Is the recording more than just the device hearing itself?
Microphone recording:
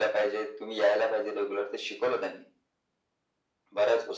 No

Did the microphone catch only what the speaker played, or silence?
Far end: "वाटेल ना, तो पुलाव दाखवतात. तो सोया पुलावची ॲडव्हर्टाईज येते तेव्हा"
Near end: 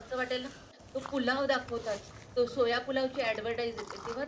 Yes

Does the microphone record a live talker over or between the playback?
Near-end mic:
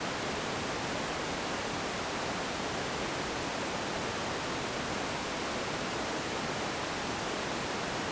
No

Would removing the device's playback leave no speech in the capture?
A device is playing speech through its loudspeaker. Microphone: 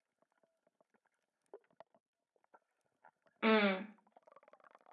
No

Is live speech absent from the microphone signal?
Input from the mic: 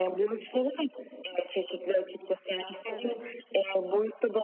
No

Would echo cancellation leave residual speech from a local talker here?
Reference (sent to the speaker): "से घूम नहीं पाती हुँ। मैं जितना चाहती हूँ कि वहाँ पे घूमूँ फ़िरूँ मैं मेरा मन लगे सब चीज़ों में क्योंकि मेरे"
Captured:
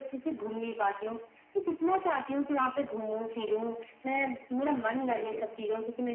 Yes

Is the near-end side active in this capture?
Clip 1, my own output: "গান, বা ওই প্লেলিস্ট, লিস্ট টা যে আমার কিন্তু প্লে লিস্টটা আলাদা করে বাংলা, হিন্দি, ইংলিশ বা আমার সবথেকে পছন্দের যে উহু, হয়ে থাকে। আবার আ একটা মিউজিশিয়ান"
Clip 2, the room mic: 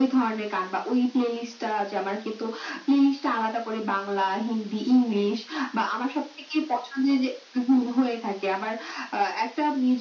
No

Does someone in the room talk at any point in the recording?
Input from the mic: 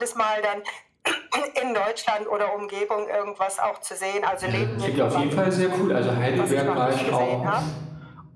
Yes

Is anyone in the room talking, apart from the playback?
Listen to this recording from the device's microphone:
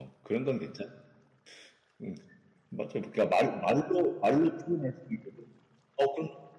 Yes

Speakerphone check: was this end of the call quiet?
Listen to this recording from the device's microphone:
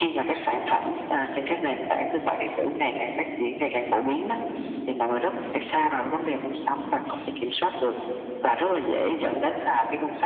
Yes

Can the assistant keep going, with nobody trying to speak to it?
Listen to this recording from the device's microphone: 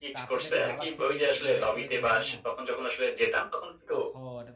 No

